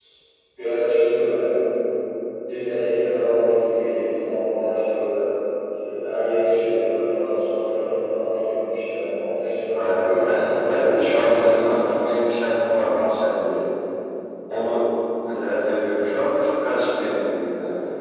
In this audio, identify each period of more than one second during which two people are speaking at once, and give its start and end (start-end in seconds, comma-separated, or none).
9.8-11.9